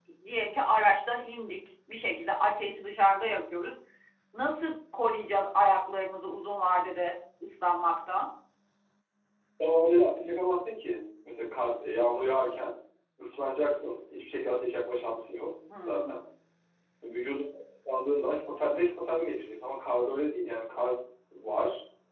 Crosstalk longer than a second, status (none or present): none